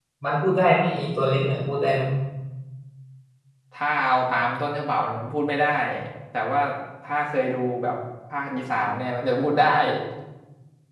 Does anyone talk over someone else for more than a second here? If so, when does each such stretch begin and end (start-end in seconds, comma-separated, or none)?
none